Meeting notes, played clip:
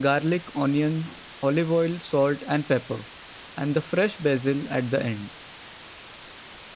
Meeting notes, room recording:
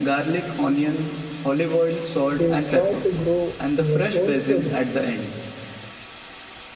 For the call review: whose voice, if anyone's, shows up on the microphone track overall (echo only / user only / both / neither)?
both